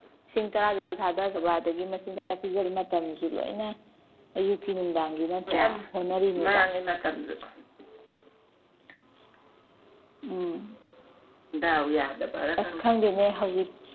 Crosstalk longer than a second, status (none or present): none